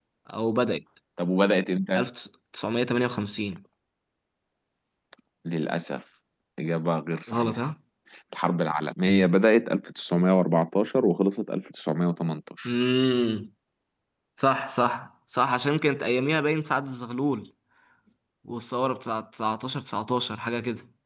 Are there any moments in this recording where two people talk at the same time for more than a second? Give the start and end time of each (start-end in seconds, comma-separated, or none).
none